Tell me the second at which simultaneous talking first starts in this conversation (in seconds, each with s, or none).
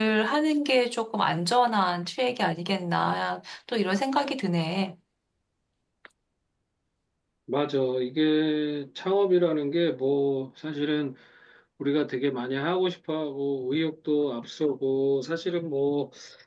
none